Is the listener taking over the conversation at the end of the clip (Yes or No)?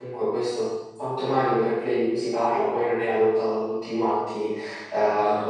No